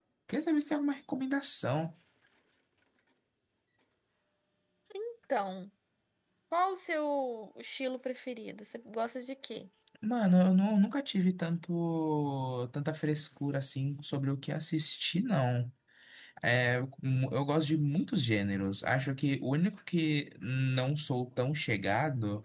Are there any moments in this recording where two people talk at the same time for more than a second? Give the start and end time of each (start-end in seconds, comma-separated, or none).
none